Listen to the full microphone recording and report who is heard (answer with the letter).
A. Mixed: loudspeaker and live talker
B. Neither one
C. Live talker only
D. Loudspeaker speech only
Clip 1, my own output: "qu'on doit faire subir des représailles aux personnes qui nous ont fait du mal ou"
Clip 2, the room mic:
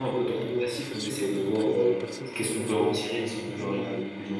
A